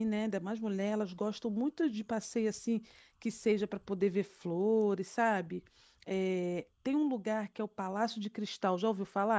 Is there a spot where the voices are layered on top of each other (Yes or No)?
No